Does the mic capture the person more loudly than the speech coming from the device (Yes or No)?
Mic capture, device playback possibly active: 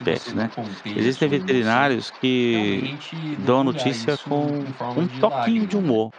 Yes